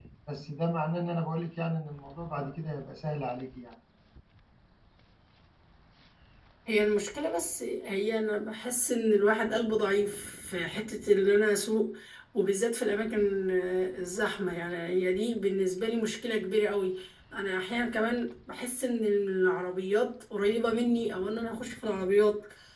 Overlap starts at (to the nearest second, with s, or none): none